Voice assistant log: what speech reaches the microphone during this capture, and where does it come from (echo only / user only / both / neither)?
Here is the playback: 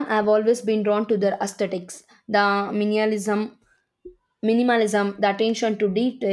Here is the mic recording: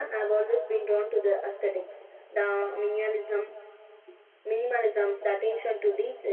echo only